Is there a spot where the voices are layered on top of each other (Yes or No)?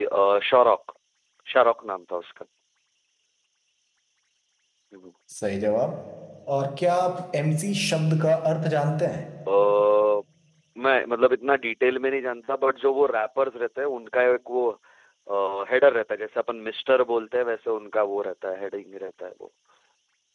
No